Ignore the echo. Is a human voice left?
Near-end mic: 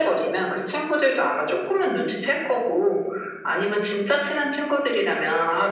No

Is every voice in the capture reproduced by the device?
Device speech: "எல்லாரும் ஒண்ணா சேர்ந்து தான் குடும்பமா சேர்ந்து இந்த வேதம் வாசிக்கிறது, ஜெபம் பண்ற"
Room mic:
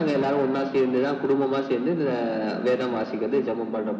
Yes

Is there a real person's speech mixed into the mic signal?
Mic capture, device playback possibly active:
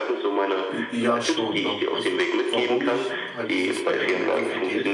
Yes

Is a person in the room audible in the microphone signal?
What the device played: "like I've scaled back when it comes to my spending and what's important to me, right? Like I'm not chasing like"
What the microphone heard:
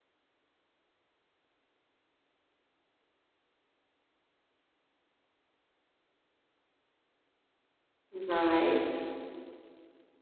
Yes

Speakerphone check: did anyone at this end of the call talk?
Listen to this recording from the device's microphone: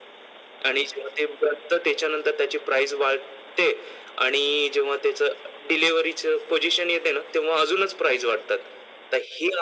No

